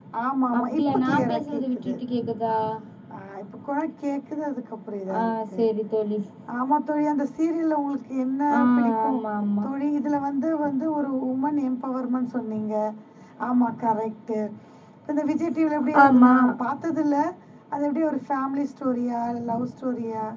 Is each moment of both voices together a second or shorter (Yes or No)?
No